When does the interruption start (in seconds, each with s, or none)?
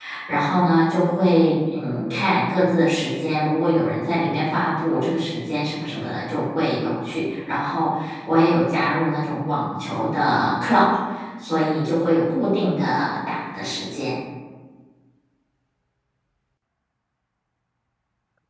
none